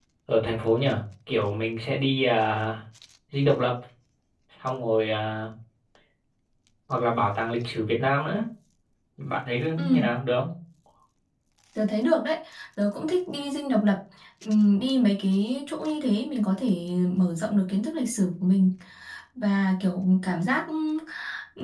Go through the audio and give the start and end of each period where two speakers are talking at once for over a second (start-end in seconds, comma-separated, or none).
none